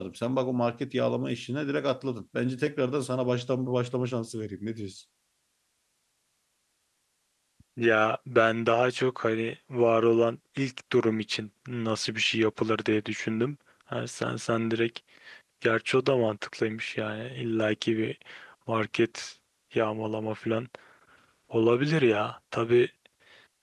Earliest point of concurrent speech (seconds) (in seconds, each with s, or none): none